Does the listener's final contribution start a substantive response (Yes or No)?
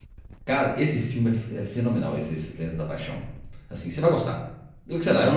No